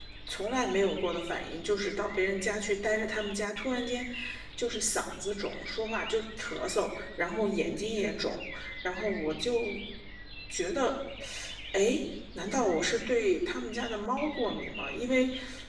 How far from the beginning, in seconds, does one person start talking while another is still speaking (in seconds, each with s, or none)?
none